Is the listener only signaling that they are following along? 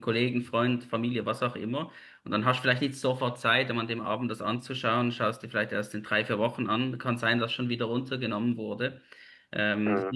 Yes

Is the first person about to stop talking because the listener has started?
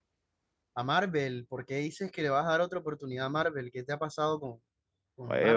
Yes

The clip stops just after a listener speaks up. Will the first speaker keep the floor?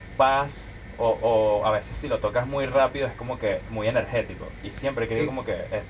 Yes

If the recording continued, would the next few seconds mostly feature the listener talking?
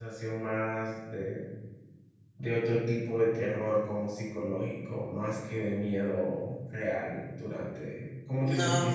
Yes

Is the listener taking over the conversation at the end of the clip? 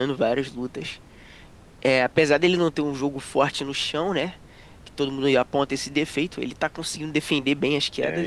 Yes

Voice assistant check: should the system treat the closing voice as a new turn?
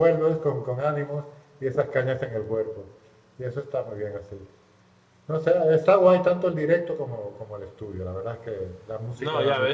Yes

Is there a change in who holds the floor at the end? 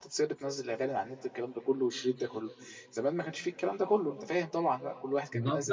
Yes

